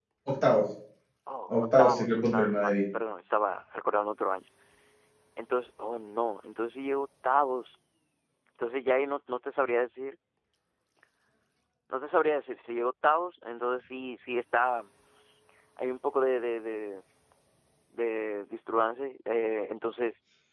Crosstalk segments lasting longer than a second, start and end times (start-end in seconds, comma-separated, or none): 1.5-2.7